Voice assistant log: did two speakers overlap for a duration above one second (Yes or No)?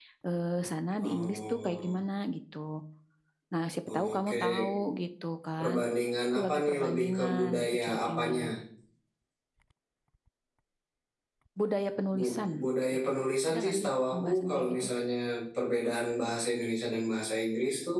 Yes